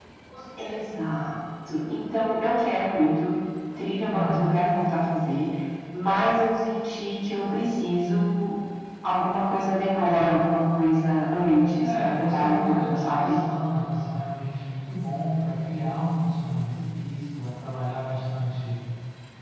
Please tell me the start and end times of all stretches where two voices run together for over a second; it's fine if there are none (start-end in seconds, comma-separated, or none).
11.8-13.4